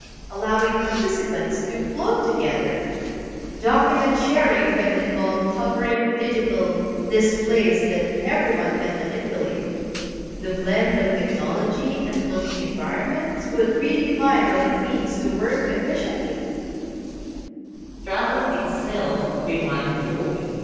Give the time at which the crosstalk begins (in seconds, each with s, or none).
none